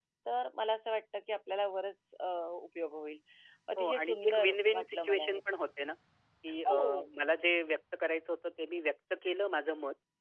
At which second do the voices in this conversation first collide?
3.8 s

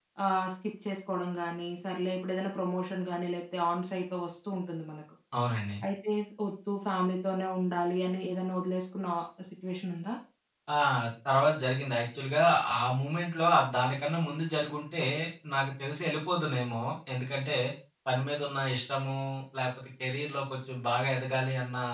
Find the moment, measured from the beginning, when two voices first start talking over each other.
none

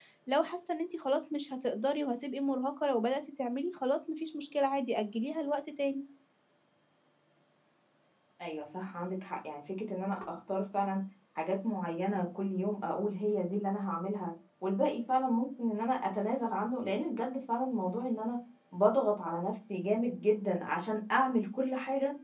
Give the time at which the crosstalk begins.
none

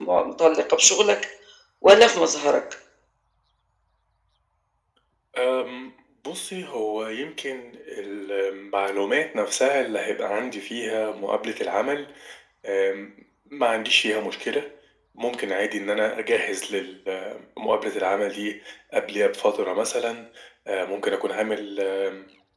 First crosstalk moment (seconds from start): none

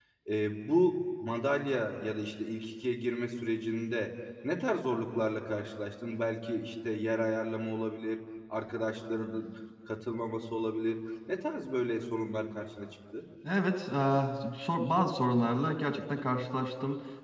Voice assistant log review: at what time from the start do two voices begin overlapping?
none

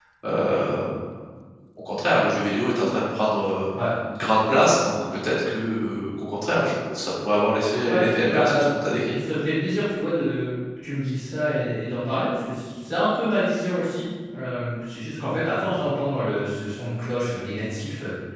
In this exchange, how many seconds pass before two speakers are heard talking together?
7.9 s

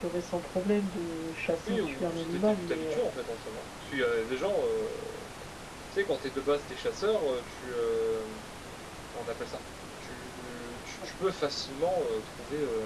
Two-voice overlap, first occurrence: 1.7 s

